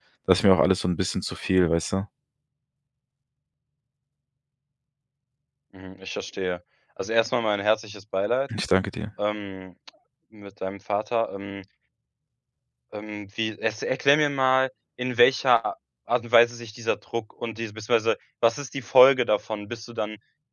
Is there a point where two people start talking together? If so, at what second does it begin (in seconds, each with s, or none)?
none